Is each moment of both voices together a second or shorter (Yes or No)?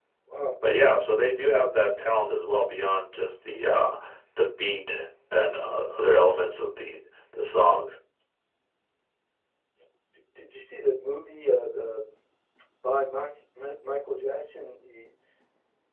Yes